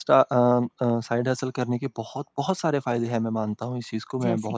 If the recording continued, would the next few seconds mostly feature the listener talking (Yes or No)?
No